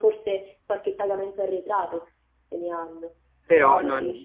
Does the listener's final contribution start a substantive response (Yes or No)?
No